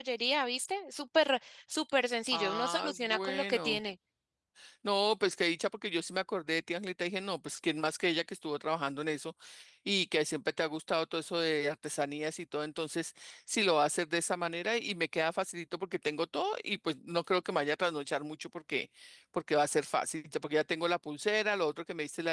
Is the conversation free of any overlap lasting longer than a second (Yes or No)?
No